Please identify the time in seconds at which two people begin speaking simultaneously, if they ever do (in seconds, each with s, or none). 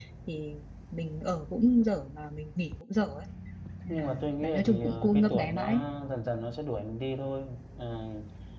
3.9 s